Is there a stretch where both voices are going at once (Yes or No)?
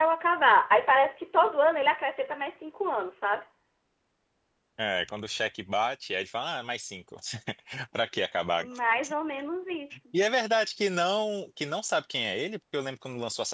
No